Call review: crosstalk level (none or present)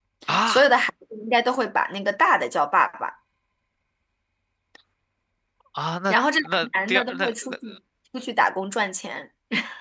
present